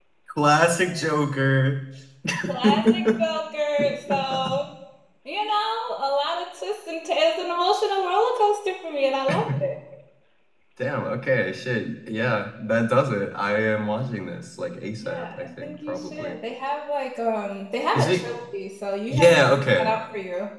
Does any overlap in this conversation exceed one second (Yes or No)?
Yes